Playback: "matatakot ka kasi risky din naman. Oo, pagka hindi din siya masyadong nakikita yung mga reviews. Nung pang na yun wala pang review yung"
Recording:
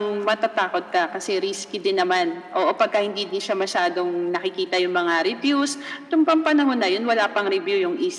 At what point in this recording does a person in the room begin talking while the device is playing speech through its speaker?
none

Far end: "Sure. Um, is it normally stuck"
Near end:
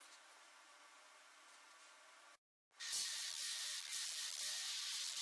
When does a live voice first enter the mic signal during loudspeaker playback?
none

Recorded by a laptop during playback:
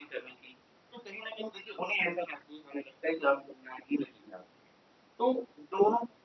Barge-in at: none

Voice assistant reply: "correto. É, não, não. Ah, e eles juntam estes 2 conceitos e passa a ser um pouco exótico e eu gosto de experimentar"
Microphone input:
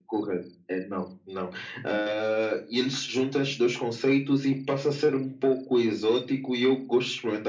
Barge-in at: none

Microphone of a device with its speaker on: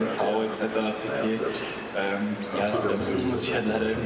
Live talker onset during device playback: 2.6 s

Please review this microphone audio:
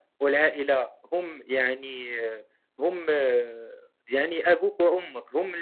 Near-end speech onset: none

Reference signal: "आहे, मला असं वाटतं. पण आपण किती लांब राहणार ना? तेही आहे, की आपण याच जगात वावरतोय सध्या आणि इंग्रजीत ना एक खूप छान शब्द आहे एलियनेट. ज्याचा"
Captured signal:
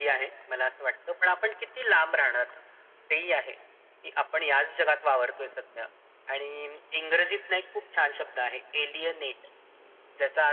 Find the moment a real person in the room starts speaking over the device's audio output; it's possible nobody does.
none

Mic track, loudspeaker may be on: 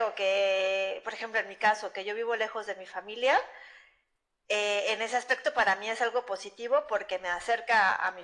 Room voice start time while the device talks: none

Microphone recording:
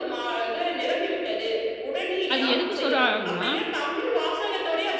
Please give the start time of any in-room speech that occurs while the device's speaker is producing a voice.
2.3 s

